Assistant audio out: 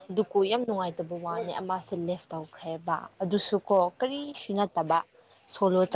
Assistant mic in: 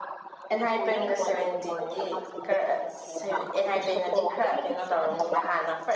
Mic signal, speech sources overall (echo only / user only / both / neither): both